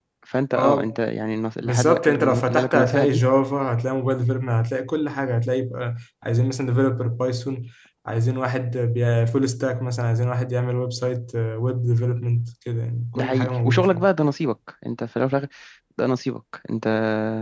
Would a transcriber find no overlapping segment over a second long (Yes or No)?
No